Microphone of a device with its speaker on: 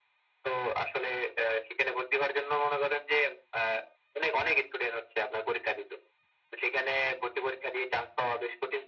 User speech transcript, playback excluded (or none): none